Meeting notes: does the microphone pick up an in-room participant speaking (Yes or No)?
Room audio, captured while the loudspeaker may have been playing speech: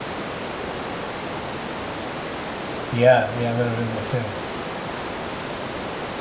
Yes